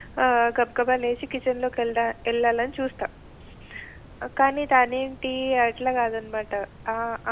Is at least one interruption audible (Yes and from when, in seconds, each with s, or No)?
No